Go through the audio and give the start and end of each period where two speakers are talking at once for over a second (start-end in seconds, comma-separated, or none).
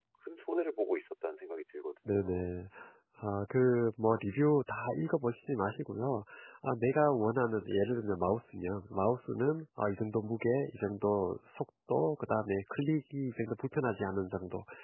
none